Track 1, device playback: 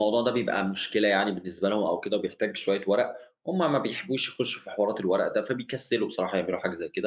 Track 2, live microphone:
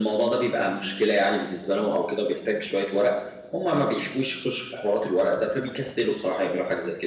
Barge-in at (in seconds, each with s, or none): none